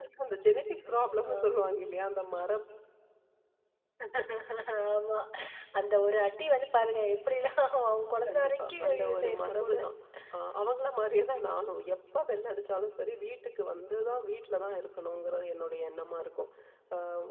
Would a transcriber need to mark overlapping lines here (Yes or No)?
Yes